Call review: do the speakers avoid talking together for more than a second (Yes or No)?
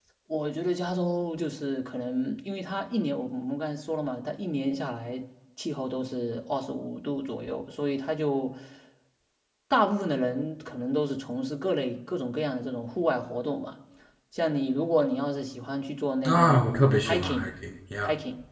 No